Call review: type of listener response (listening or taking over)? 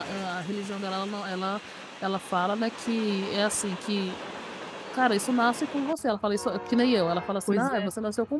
listening